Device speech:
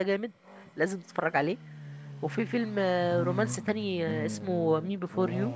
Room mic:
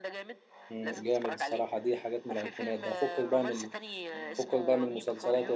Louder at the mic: user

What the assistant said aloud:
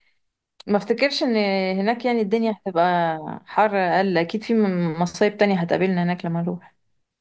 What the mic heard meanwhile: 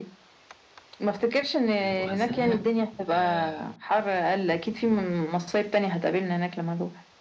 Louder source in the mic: echo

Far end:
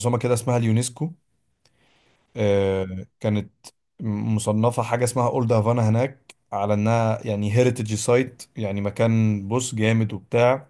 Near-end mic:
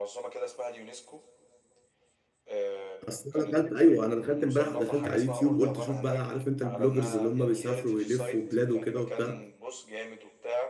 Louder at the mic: user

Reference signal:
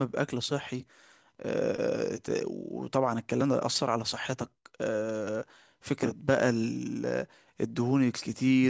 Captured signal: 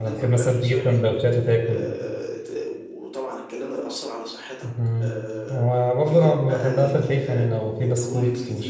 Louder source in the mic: user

